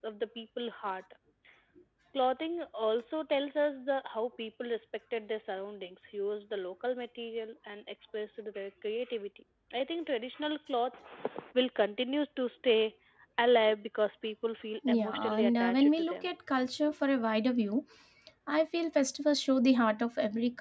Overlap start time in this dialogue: 14.8 s

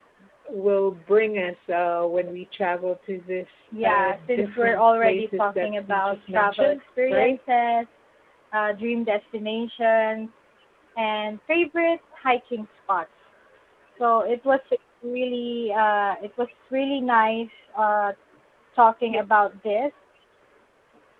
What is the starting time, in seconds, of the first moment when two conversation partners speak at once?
3.7 s

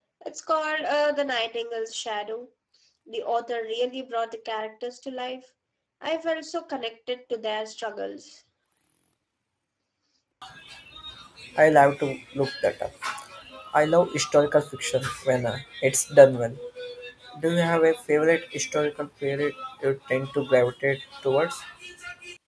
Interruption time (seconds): none

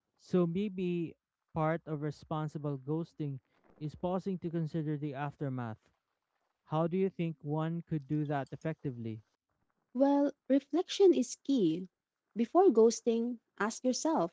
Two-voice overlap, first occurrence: none

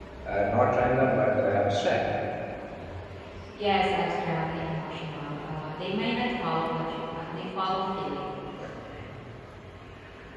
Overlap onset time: none

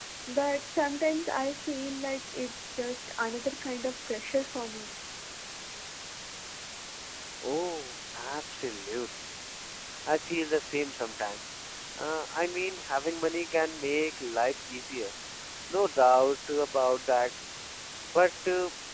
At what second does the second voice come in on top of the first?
none

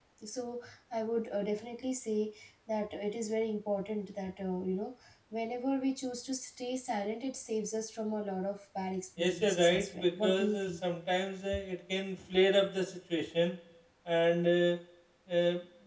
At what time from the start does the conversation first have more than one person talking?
9.2 s

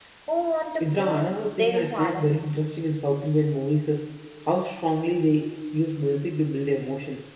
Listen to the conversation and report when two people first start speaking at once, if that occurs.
0.8 s

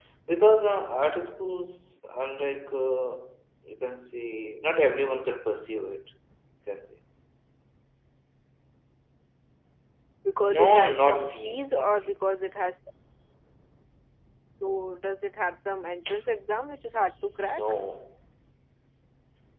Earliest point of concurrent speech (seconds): 10.4 s

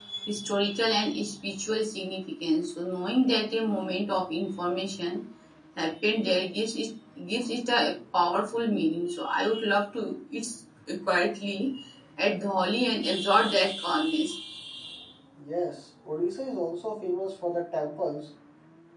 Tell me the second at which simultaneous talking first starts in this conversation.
none

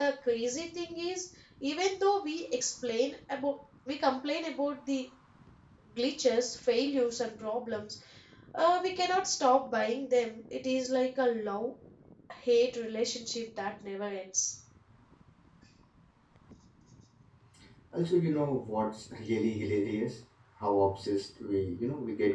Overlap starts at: none

